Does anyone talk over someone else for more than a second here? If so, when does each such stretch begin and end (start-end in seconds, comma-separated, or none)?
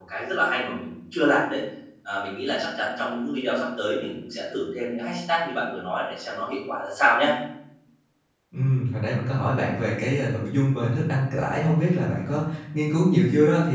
none